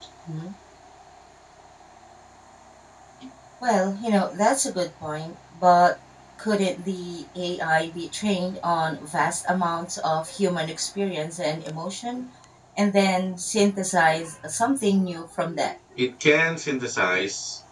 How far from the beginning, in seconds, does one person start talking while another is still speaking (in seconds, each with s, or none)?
none